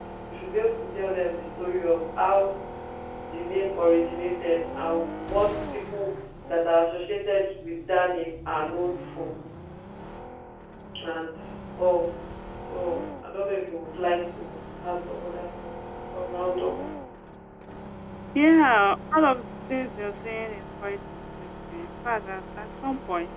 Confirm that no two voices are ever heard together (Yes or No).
Yes